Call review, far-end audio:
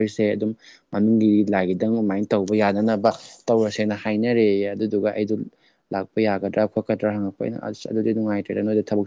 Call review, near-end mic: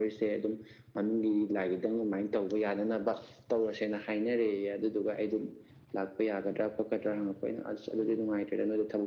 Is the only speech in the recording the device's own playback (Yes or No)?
Yes